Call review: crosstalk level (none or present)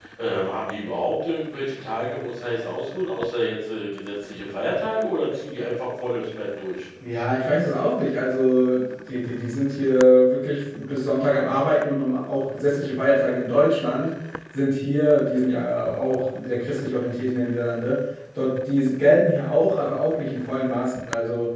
none